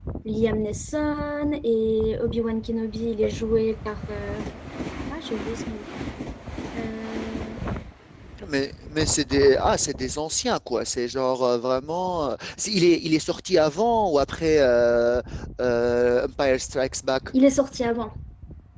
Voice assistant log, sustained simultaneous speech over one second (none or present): none